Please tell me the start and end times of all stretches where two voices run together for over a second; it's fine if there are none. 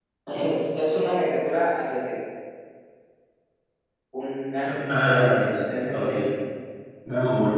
4.6-6.1

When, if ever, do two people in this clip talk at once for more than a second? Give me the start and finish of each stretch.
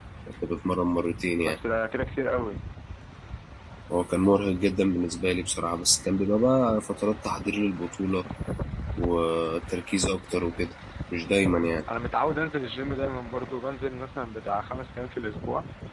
none

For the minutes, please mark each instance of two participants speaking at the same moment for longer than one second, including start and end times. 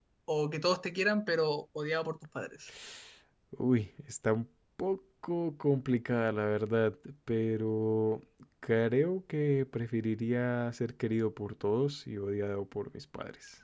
none

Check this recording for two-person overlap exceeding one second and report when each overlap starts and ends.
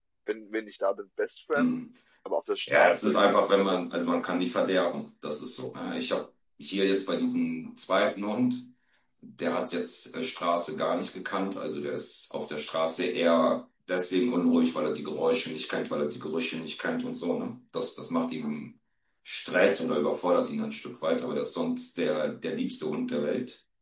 2.7-3.9

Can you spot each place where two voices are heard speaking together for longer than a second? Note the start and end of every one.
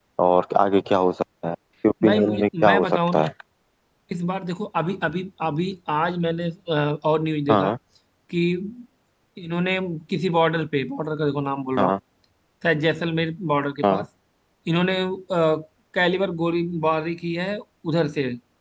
2.0-3.3

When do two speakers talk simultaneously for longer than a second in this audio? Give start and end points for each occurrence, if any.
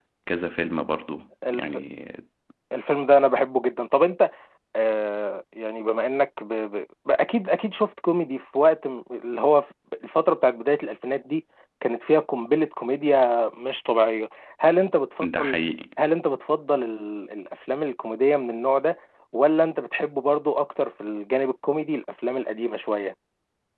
none

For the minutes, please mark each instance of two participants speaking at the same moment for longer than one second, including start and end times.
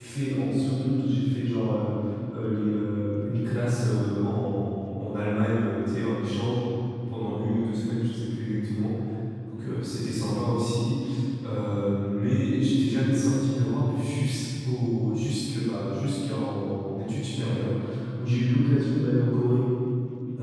none

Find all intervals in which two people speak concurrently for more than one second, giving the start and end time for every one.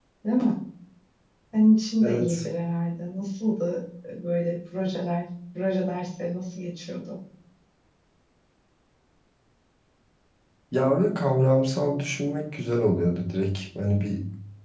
none

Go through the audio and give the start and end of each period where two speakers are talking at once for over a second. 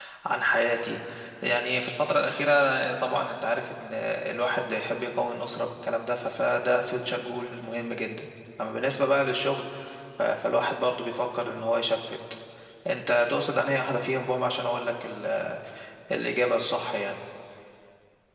none

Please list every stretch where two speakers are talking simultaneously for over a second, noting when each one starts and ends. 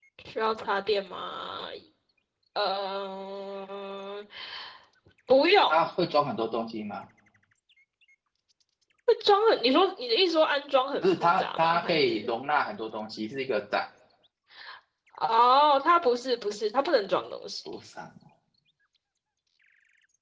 11.0-12.3

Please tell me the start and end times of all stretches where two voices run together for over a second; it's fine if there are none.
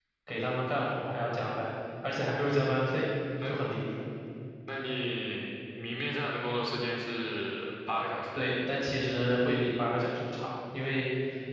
none

